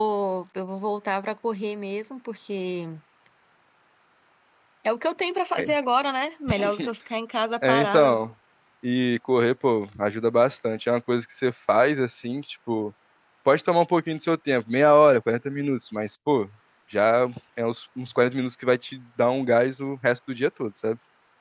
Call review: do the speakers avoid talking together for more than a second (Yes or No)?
Yes